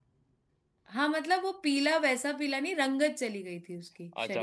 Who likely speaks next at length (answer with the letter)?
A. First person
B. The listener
B